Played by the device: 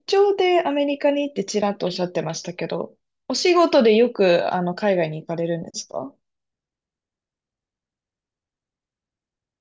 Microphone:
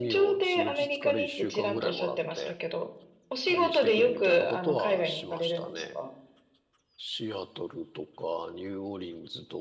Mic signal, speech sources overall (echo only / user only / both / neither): both